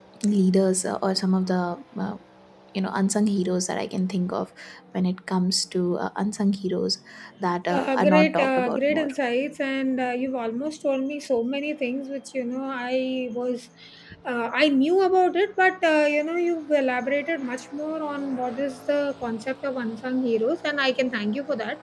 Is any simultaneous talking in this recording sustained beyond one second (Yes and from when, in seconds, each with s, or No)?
Yes, from 7.7 s